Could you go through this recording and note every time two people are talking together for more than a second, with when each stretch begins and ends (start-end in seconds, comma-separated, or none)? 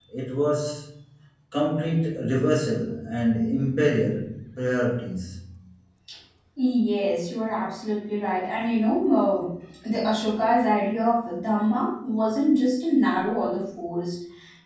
none